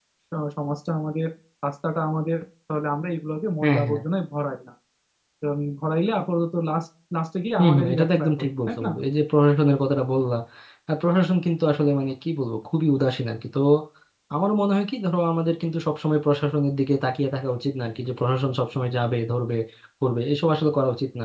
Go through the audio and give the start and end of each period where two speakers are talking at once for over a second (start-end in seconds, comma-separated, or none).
7.6-8.9